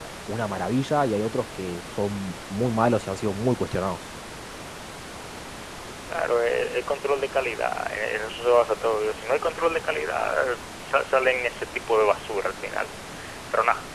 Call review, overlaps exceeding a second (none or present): none